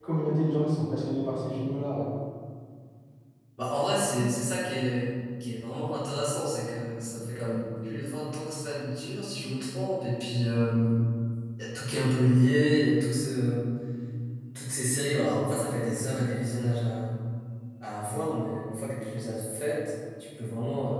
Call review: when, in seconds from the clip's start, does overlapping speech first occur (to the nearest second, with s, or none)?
none